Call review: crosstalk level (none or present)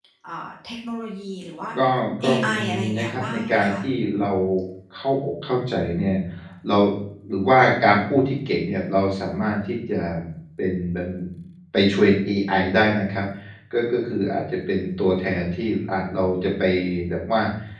present